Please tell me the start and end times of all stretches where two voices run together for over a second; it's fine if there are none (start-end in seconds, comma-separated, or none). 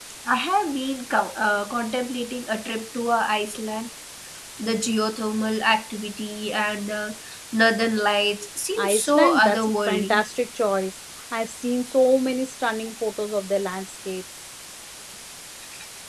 8.8-10.2